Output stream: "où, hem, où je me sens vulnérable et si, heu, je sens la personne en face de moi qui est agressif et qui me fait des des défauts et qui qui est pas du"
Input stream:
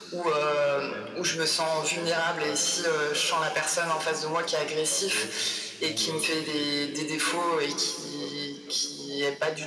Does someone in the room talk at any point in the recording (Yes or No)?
Yes